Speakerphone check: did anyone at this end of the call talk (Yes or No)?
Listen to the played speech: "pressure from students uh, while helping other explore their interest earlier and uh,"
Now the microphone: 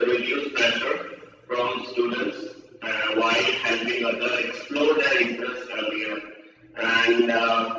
No